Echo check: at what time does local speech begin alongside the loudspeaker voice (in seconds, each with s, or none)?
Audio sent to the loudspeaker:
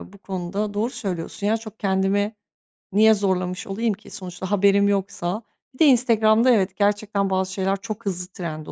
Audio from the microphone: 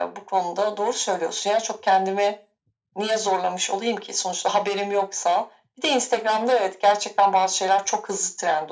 none